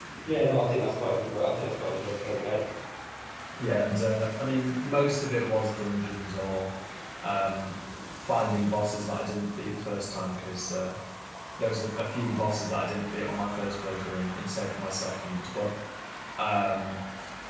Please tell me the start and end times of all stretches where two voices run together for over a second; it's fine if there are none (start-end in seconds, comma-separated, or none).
none